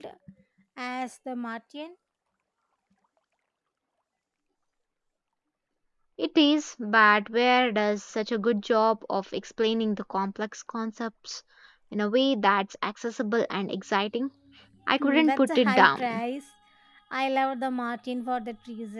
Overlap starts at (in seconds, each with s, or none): 15.0 s